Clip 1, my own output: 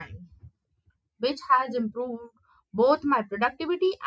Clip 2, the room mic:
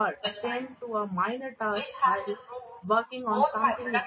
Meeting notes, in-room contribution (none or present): present